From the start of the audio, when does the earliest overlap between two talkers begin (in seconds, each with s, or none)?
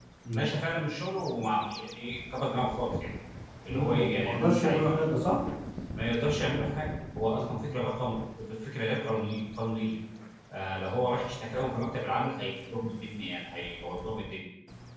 3.7 s